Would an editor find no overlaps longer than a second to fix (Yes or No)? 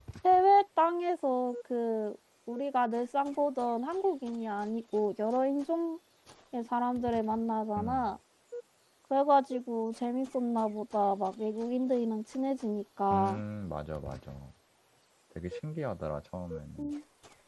Yes